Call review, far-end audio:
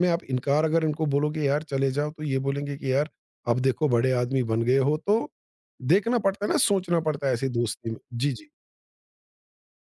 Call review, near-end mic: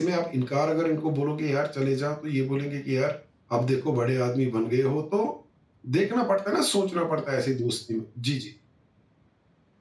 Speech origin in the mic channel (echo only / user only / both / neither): echo only